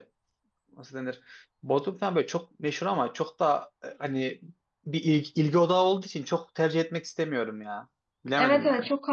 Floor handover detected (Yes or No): Yes